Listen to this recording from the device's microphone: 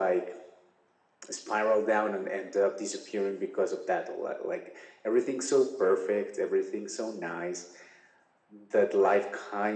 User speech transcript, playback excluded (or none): none